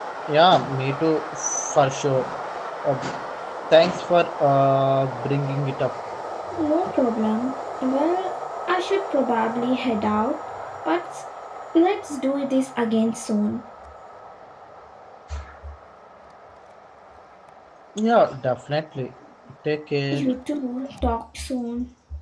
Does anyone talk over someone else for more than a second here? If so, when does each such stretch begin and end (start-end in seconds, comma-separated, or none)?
none